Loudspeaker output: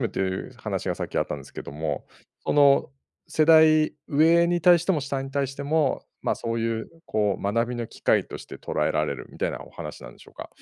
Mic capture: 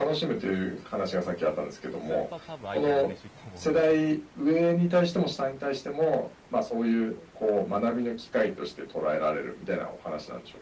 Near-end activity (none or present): present